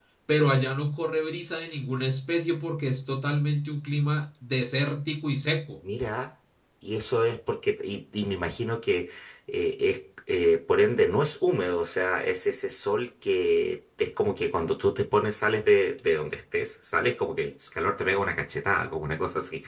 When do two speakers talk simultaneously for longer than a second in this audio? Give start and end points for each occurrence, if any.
none

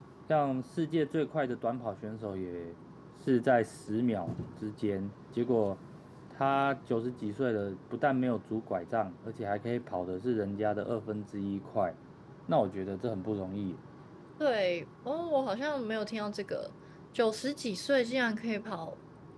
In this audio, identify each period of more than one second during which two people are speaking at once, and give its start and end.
none

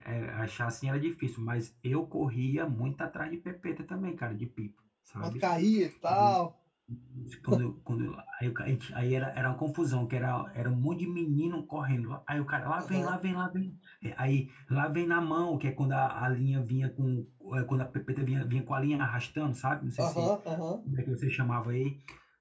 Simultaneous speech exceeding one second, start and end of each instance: none

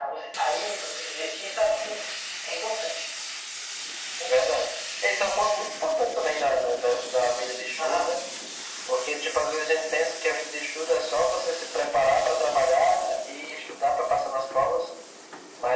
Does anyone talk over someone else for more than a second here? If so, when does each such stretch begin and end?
none

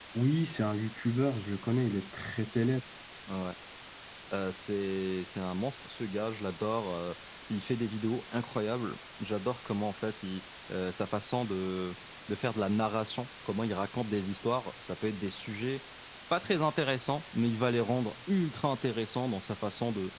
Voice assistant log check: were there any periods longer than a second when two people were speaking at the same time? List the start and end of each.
none

